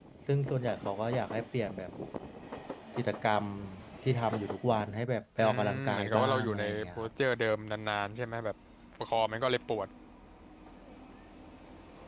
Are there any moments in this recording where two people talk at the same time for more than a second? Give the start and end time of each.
5.4-7.1

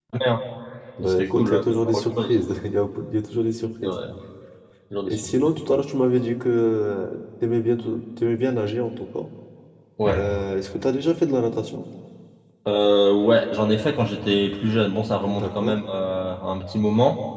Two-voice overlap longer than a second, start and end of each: 1.0-2.3

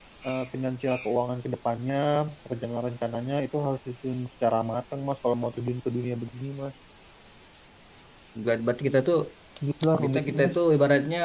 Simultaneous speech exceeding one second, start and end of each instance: none

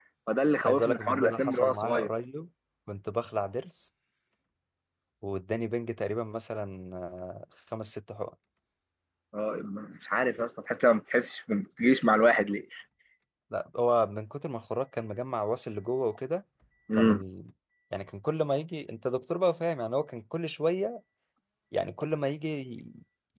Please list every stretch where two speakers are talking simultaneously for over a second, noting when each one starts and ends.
0.7-2.1

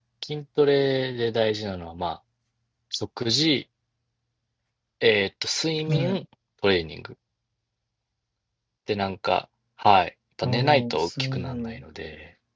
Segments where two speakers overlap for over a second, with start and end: 10.4-11.8

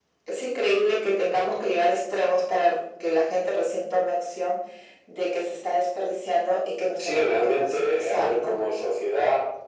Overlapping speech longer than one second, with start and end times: 7.0-8.6

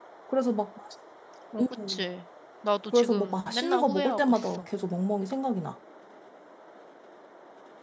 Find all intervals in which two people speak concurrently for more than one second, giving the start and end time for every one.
2.9-4.6

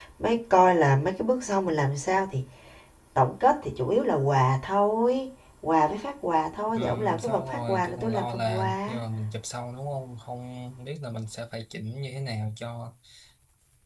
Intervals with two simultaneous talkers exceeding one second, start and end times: 6.8-9.0

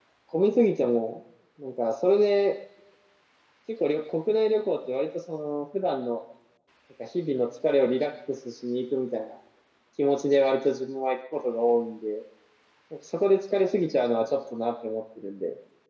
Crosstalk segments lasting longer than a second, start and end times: none

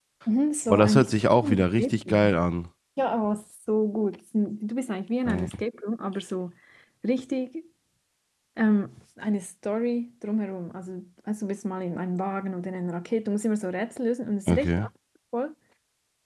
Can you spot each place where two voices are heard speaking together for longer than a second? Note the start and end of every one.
0.7-2.4

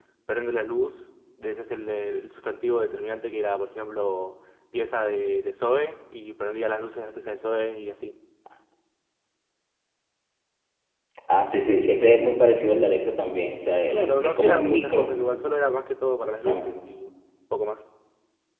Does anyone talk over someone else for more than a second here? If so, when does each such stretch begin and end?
13.9-15.1

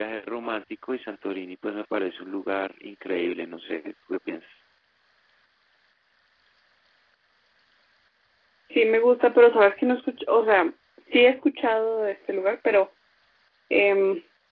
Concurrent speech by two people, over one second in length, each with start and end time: none

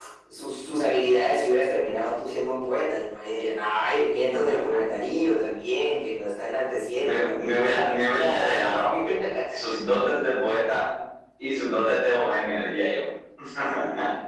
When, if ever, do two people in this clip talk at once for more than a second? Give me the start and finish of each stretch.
7.0-8.9

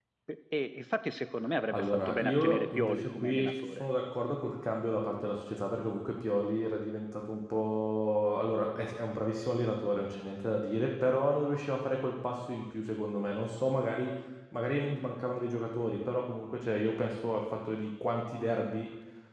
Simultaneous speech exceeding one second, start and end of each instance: 1.7-3.8

